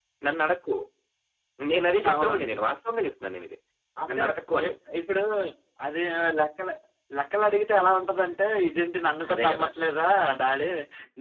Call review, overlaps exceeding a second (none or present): none